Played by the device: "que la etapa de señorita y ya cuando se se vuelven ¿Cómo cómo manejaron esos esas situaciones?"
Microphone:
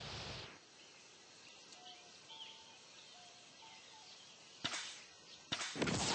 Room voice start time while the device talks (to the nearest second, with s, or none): none